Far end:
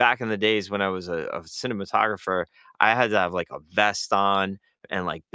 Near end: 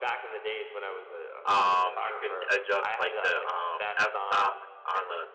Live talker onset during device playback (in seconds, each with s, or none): 1.4 s